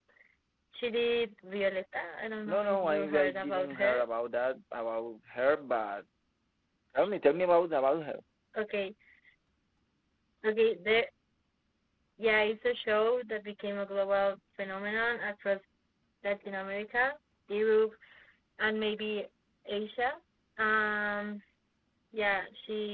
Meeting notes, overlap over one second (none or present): present